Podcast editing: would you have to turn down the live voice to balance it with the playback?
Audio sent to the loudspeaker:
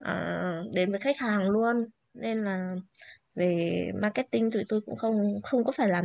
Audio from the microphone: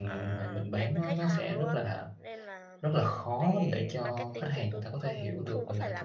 Yes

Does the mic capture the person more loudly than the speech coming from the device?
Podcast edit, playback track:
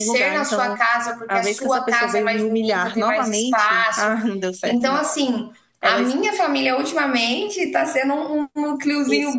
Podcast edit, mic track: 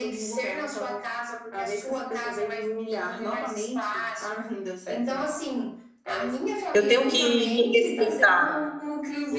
Yes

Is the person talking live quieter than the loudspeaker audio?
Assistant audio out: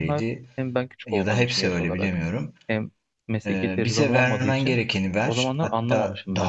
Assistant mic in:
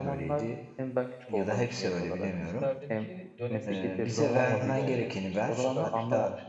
Yes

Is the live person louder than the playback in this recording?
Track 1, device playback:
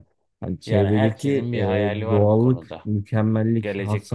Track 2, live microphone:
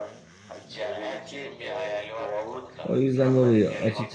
Yes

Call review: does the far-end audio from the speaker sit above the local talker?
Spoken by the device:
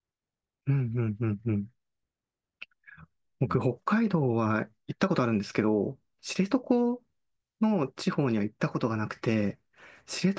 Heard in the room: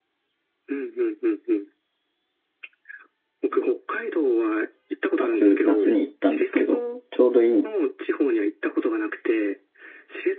No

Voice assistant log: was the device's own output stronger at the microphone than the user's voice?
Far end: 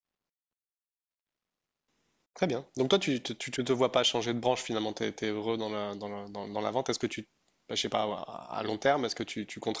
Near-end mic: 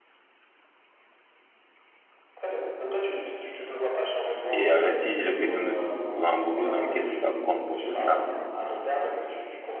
No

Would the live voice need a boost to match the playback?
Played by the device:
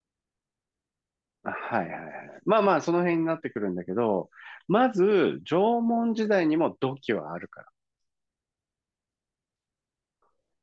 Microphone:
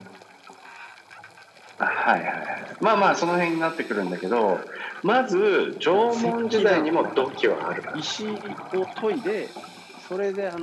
Yes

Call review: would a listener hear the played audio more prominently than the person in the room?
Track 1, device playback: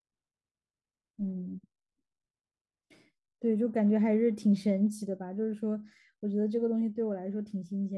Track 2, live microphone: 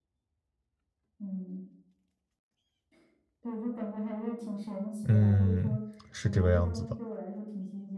No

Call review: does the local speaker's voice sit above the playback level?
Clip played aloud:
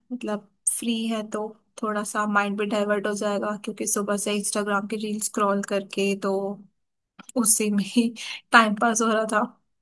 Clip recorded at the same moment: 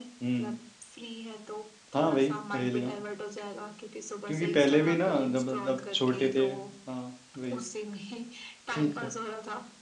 Yes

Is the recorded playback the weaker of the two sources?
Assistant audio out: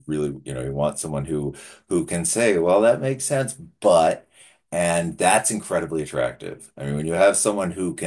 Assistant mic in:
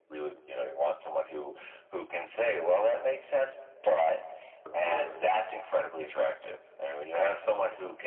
No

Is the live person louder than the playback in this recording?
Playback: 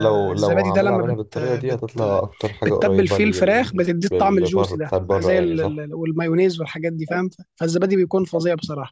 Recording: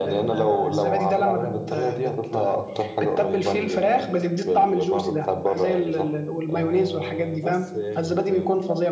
No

